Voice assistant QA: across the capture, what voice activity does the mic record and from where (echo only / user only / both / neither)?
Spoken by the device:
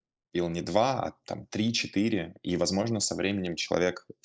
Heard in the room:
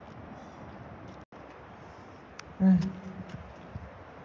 user only